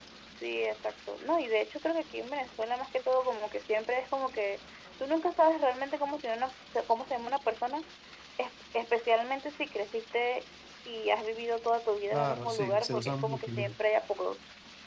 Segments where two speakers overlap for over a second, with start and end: 12.1-13.8

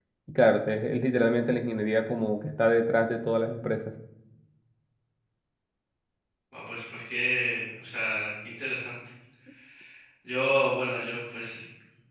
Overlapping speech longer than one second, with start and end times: none

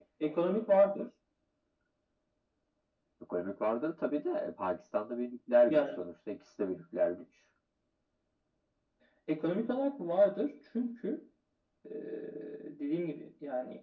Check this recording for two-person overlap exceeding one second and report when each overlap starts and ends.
none

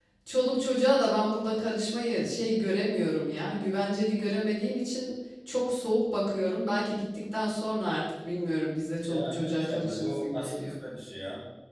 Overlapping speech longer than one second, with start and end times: 9.1-10.6

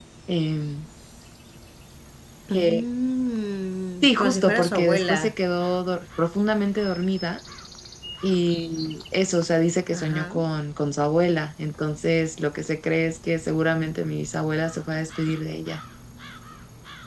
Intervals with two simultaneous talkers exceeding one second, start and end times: 4.0-5.4

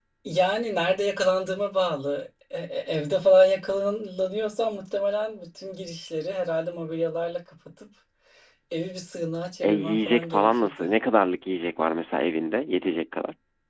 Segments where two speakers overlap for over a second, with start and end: 9.6-10.9

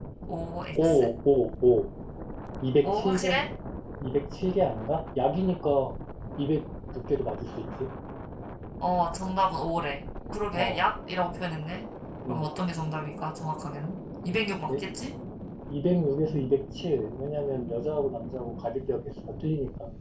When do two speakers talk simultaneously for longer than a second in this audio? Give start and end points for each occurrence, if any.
none

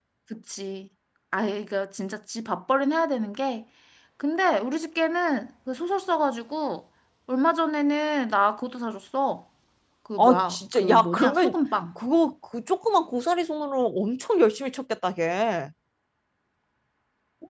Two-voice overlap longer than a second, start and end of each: 10.2-11.6

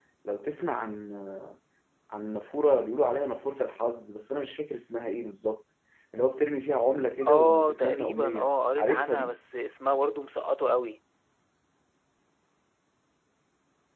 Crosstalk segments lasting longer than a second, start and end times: 7.3-9.3

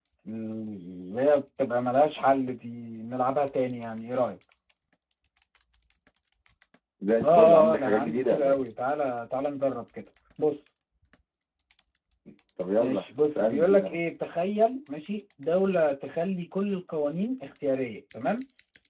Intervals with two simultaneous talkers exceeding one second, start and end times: 7.2-8.7, 12.8-14.0

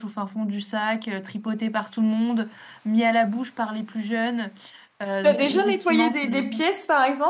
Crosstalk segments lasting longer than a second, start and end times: 5.2-6.6

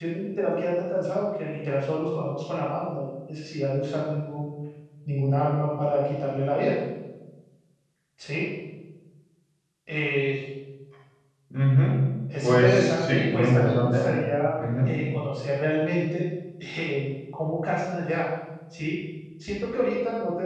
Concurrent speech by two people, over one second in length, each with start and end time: 12.4-14.0

